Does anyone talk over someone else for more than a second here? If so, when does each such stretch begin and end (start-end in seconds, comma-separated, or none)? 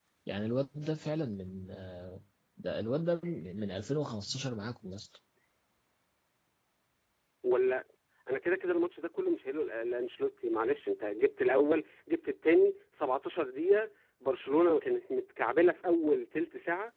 none